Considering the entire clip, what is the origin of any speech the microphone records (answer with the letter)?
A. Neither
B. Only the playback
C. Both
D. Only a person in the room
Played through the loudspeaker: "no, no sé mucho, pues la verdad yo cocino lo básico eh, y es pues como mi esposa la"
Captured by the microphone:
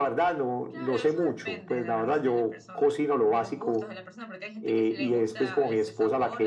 C